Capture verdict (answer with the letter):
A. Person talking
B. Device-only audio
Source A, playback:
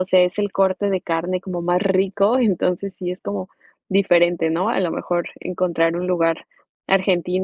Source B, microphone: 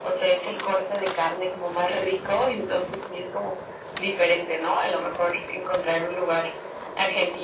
B